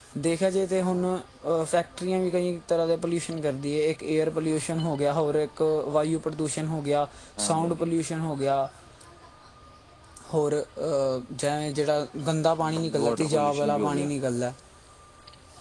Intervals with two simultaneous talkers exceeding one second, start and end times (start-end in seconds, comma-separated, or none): 12.6-14.1